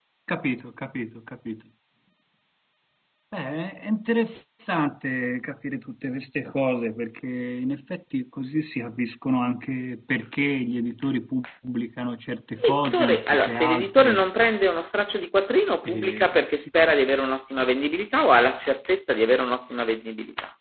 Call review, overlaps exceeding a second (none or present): present